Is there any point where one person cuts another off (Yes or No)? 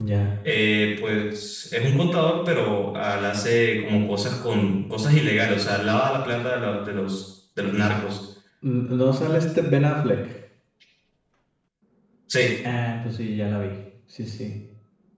No